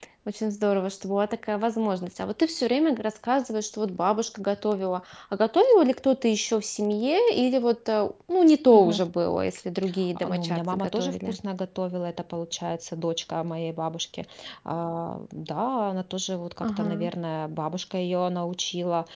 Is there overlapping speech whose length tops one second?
Yes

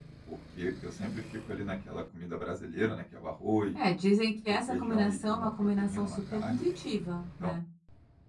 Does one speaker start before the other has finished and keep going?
Yes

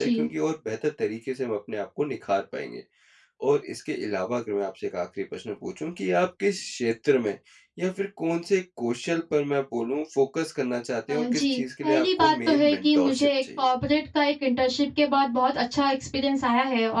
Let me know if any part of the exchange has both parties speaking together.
Yes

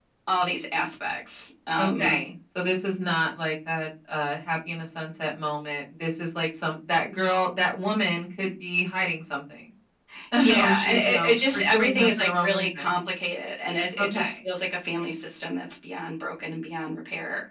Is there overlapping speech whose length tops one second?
Yes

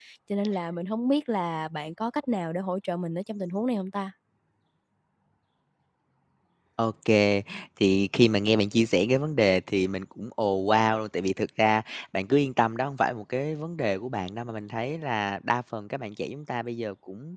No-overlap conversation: Yes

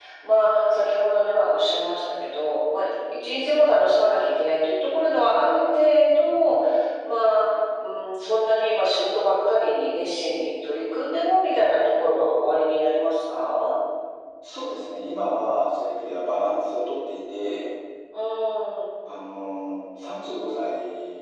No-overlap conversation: Yes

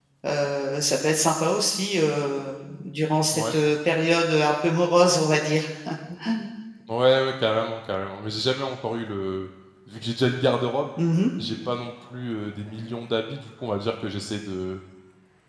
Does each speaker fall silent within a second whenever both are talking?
Yes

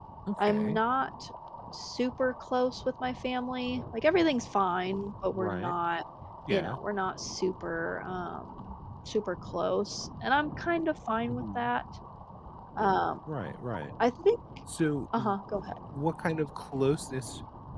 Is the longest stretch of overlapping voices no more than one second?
Yes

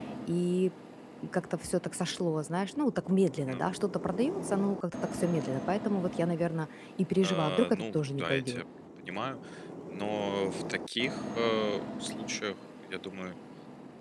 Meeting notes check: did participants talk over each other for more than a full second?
Yes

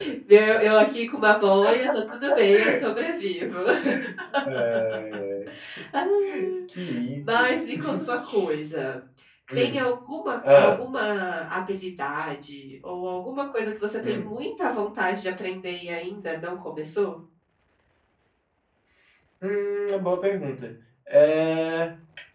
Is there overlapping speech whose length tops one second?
No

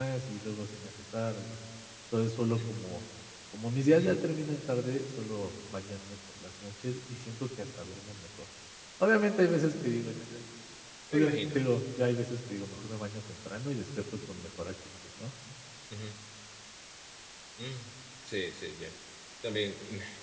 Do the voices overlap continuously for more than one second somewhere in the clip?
No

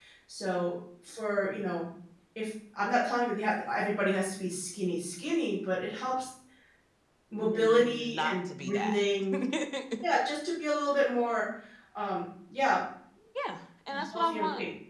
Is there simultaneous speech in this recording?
Yes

